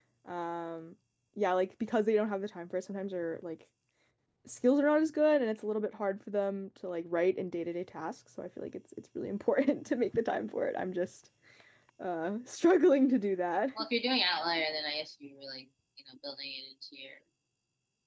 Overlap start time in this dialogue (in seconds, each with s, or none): none